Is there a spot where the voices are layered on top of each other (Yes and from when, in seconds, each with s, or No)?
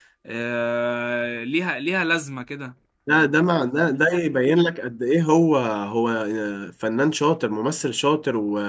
No